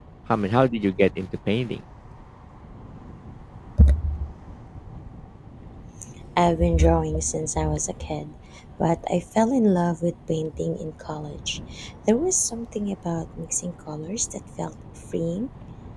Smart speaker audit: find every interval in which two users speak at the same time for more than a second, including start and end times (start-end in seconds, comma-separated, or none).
none